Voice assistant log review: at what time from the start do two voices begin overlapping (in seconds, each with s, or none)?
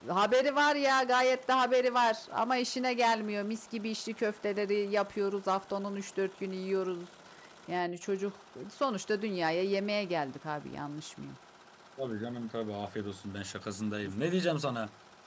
none